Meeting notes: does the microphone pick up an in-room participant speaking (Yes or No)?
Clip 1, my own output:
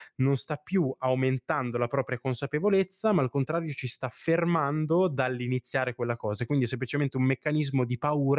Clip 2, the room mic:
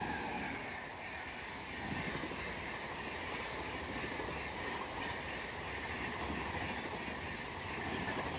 No